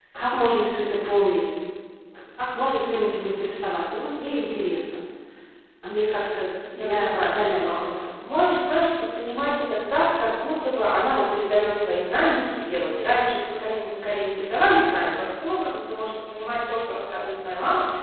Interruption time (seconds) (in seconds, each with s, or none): 6.7 s